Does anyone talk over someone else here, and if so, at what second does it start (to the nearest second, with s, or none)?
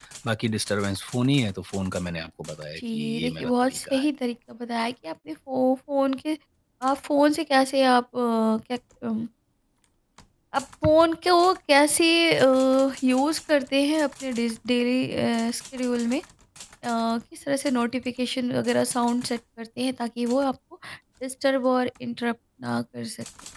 3 s